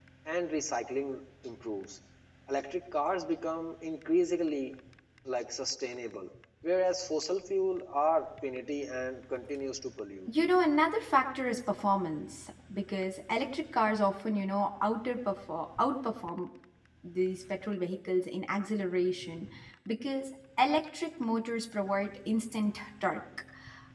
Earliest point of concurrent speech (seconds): none

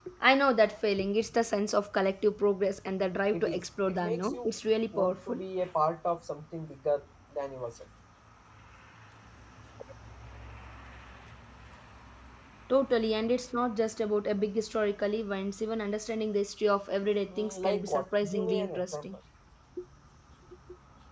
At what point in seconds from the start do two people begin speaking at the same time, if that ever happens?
3.3 s

